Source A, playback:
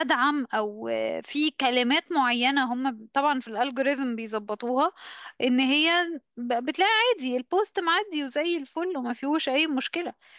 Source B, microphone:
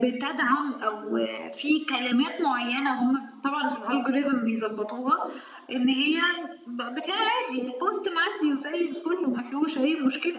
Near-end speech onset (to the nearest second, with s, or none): none